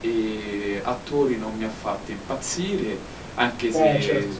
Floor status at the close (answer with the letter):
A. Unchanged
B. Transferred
A